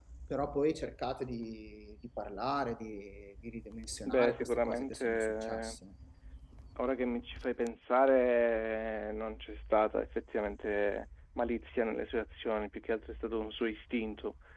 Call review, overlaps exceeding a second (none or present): present